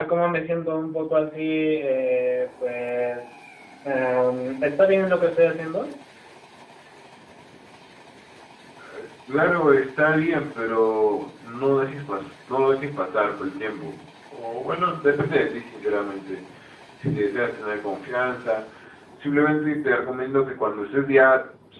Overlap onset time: none

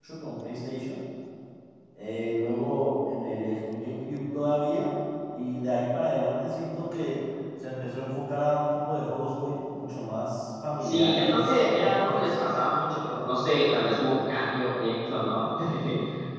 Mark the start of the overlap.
10.8 s

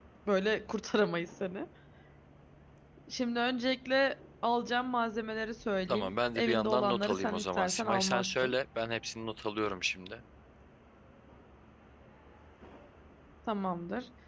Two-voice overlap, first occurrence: 5.9 s

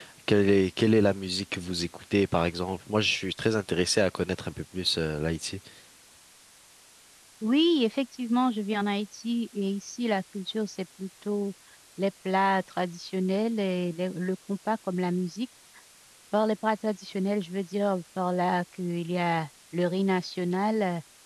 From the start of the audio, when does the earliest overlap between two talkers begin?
none

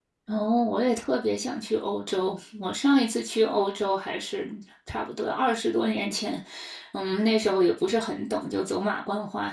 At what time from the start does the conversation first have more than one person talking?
none

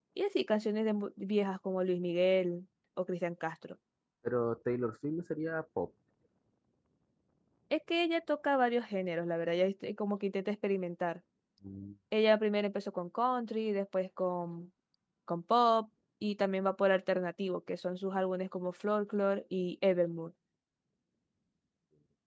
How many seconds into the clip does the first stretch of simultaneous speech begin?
none

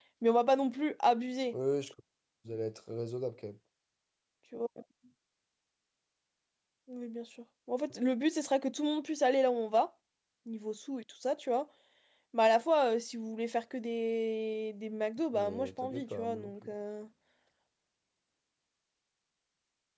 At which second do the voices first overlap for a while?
15.3 s

